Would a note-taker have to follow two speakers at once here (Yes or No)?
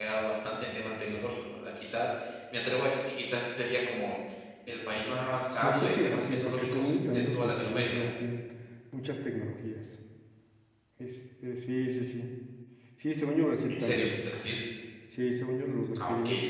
Yes